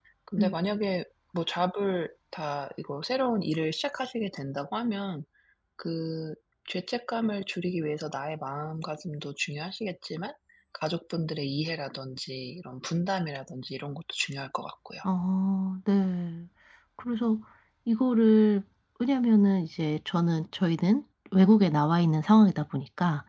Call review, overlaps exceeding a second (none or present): none